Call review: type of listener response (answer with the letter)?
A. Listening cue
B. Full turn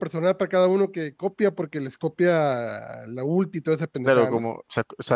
B